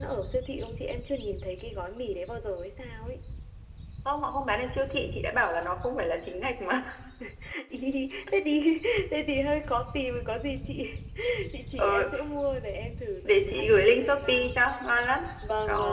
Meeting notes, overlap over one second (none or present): present